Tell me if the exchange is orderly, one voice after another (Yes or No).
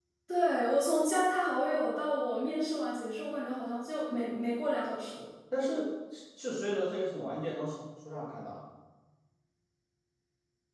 Yes